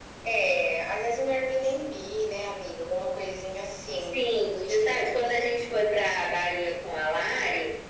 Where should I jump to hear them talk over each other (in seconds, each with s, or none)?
4.1 s